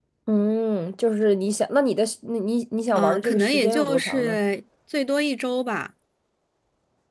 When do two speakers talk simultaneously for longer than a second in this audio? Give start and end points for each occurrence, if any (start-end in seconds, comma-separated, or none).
3.0-4.4